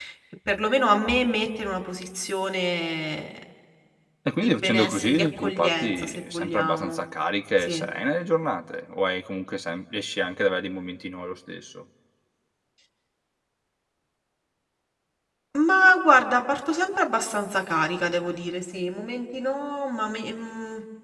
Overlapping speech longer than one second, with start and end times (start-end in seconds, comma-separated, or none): 4.4-7.0